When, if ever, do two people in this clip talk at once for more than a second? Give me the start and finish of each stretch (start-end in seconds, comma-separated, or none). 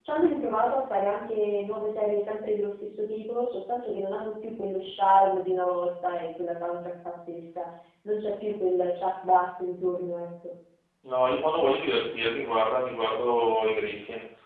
none